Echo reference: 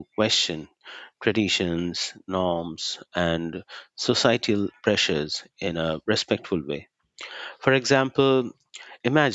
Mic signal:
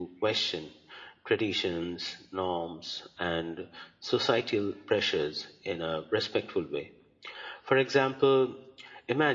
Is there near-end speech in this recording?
No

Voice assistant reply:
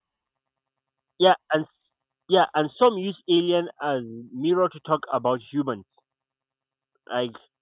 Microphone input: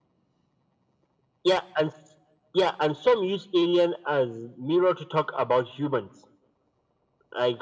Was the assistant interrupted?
No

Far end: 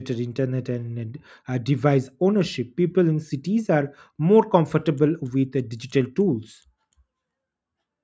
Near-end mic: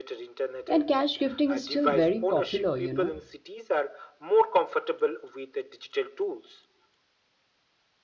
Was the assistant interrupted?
Yes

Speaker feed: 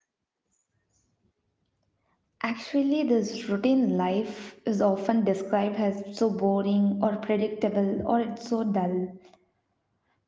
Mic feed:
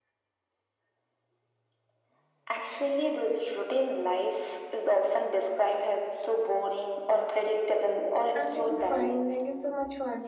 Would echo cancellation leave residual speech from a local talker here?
Yes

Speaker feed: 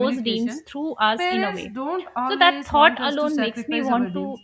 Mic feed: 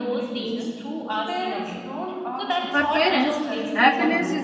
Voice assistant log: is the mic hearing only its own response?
No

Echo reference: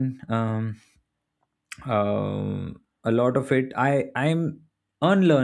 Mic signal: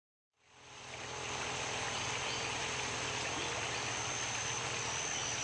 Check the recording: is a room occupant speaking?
No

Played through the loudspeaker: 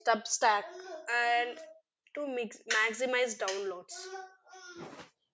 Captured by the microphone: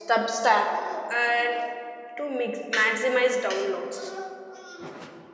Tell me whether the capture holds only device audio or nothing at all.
Yes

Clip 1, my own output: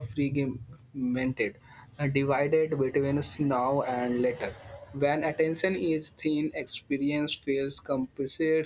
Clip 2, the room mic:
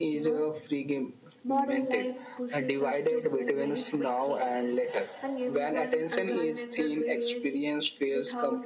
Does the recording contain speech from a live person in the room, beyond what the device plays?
Yes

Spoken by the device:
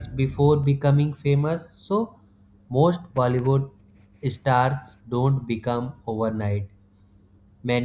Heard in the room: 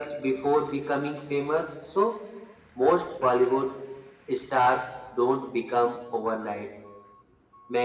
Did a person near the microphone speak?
No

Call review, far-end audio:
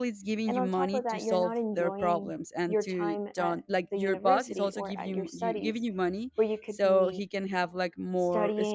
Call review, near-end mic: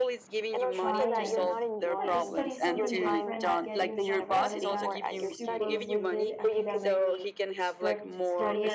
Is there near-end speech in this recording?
Yes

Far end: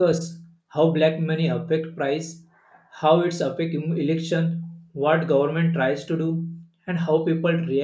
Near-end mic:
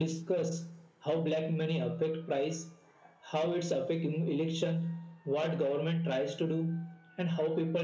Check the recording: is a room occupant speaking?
No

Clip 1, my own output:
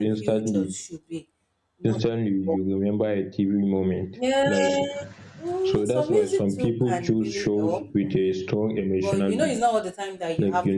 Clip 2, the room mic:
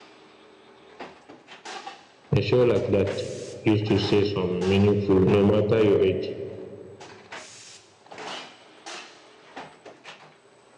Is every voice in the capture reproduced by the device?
No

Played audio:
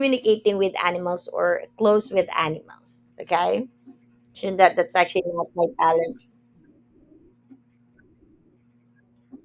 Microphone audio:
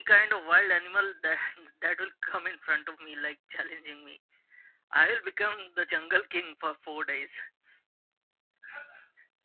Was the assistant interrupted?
Yes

